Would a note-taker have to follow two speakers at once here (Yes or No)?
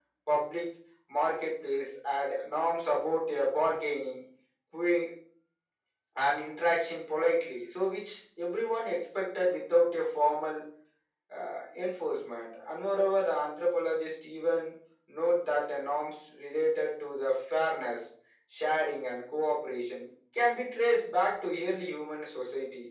No